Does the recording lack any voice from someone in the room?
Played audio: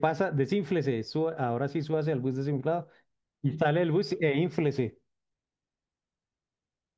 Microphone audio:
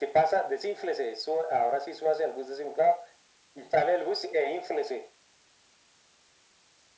Yes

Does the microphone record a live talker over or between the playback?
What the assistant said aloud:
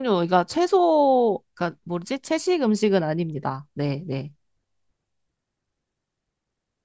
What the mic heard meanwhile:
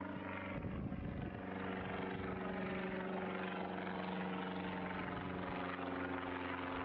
No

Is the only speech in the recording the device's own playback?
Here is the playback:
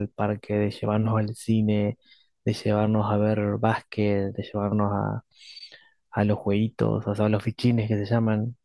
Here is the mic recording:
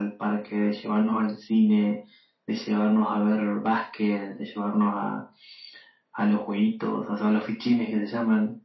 Yes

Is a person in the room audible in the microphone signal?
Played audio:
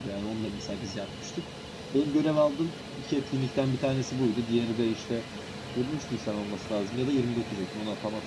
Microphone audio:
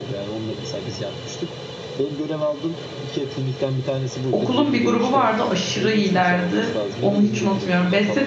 Yes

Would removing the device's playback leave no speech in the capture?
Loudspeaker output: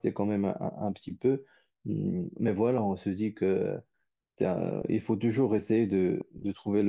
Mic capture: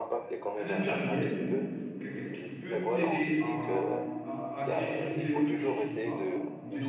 No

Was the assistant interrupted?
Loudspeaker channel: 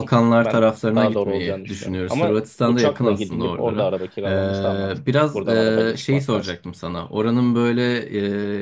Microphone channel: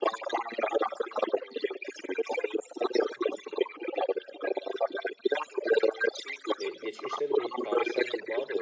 Yes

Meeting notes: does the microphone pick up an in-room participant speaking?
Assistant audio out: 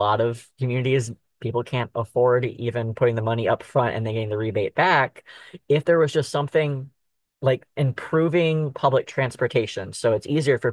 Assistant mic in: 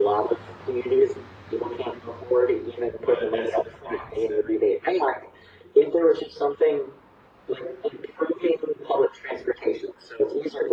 Yes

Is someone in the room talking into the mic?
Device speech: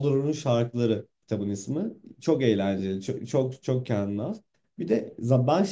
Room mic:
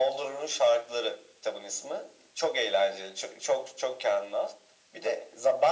No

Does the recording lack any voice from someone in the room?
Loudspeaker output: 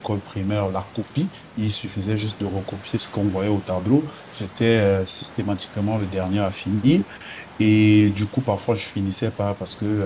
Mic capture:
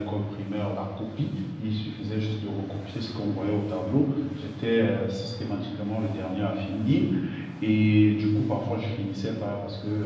Yes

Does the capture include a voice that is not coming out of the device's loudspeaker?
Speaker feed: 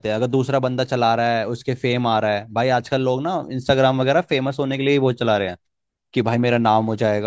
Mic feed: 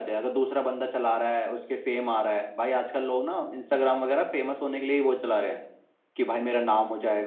No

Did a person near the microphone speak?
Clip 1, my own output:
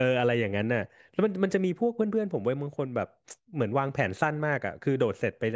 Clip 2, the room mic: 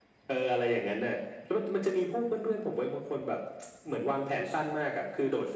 No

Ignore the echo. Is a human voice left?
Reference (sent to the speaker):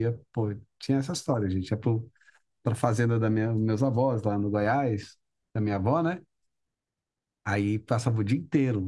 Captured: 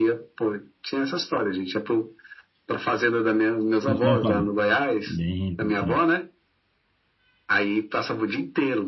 Yes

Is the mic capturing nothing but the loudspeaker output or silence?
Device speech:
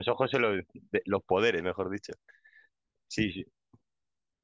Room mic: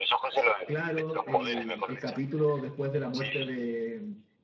No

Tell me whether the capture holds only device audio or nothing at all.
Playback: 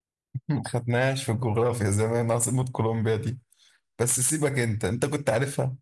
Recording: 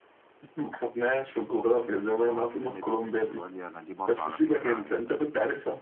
No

